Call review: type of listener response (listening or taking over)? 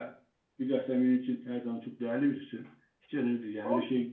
listening